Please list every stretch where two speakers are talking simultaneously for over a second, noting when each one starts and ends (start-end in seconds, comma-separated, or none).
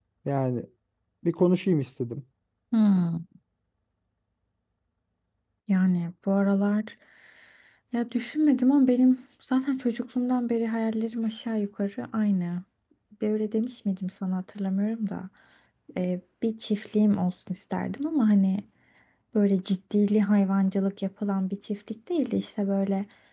none